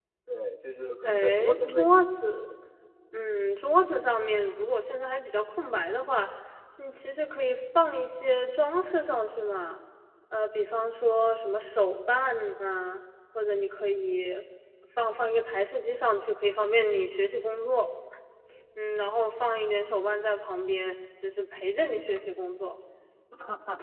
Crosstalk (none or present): present